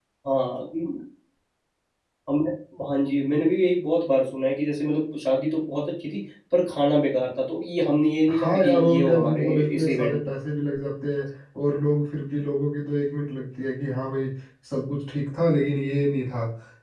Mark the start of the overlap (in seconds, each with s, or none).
8.3 s